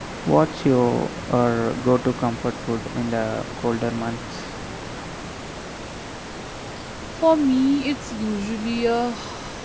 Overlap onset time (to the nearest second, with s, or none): none